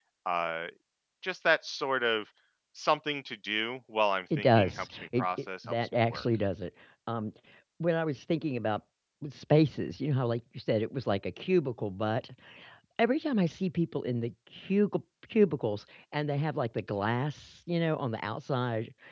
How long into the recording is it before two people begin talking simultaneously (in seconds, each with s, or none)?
4.3 s